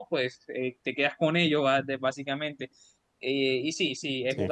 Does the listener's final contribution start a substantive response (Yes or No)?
No